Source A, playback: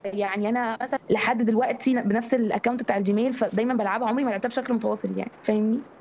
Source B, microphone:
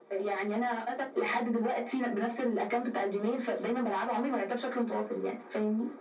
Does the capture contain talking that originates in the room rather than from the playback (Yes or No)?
No